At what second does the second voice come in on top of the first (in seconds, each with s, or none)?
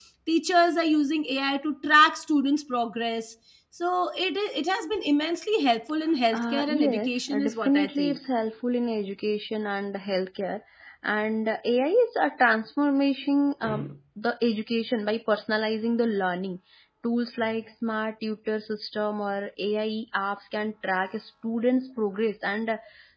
6.3 s